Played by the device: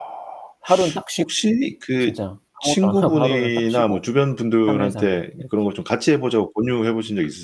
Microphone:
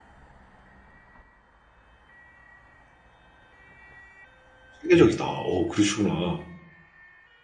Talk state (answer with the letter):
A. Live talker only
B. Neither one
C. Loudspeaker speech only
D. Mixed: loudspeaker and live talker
A